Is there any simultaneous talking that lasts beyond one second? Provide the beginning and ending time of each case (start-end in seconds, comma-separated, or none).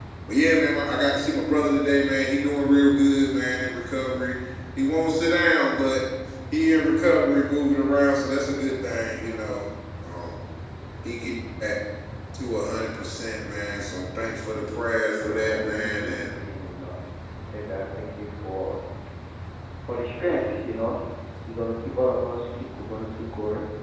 14.7-16.4